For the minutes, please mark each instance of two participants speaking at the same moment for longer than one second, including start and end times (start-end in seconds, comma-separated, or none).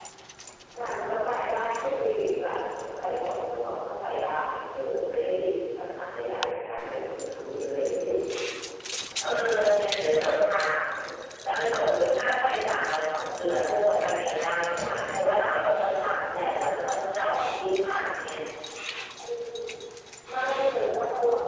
none